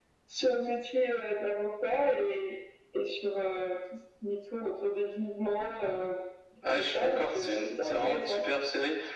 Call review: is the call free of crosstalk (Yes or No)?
No